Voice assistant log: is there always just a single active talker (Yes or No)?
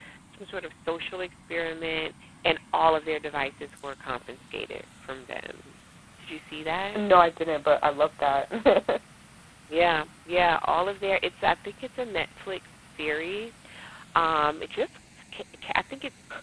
Yes